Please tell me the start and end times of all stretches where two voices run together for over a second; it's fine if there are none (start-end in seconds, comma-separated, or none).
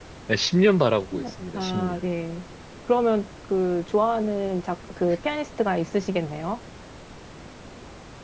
none